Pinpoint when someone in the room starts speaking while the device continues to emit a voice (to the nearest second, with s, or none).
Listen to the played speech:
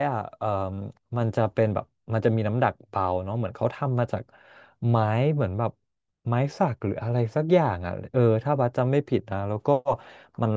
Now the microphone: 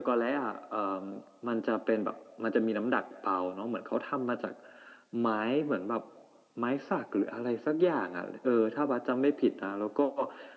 none